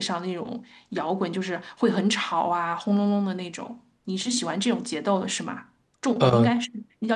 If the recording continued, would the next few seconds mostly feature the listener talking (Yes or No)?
No